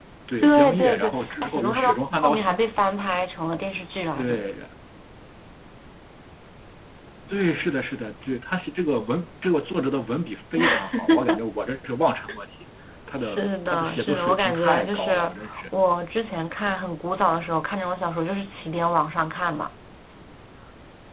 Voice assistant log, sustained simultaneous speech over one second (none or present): present